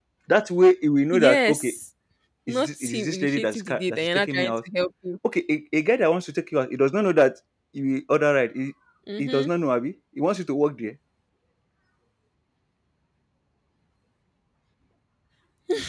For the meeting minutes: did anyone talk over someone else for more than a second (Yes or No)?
Yes